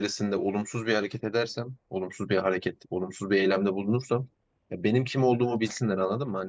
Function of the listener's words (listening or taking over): listening